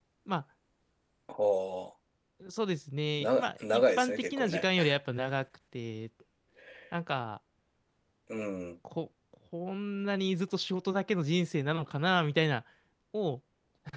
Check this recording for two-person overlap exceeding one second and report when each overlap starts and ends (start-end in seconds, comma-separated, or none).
3.2-4.6